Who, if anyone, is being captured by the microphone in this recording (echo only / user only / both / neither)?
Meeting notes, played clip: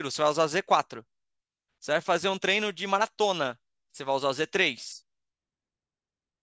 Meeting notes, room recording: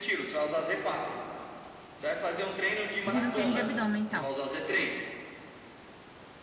both